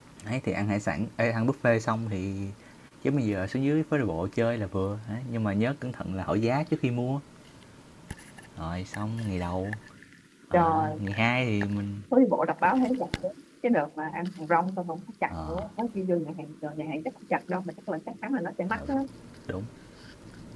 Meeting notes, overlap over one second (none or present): none